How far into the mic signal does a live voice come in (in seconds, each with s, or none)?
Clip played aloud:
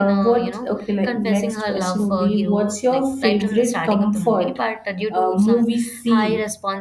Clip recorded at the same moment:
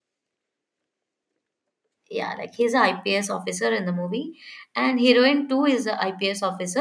2.1 s